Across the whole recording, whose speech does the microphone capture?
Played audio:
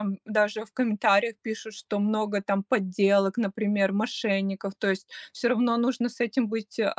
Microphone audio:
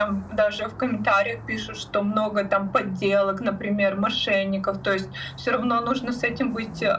echo only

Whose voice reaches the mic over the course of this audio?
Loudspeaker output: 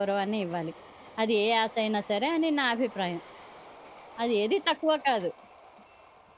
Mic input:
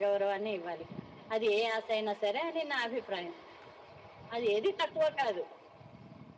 echo only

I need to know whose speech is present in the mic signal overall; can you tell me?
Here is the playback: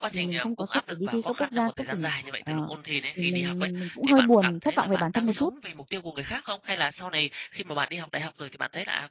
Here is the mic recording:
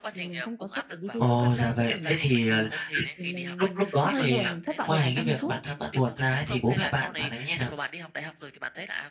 both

